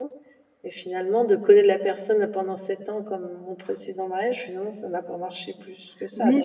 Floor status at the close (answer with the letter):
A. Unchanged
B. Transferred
B